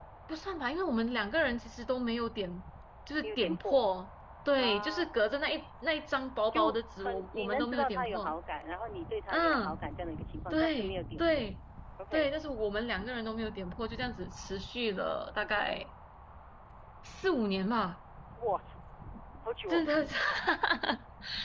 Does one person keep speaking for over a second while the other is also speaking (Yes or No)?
Yes